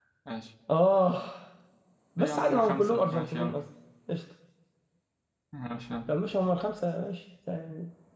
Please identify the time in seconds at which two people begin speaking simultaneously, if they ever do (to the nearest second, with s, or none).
2 s